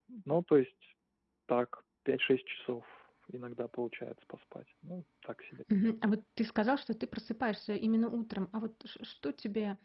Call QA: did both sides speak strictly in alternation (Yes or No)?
Yes